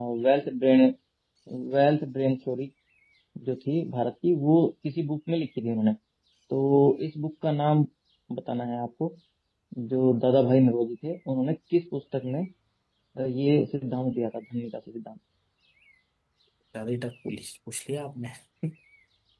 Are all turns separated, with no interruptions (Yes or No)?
Yes